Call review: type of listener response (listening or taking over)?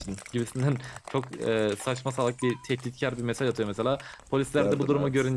listening